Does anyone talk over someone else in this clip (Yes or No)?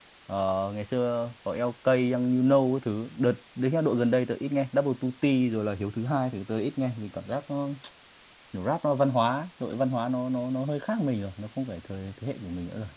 No